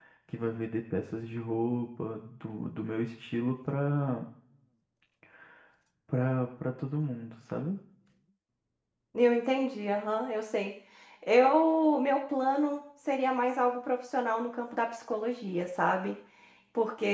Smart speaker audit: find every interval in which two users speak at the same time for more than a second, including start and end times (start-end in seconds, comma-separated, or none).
none